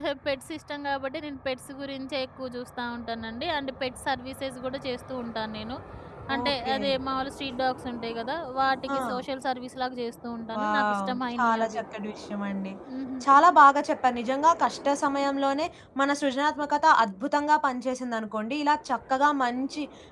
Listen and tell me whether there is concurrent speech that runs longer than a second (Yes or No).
Yes